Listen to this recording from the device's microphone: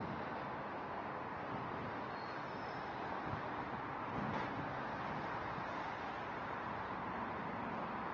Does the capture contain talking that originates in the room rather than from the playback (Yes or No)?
No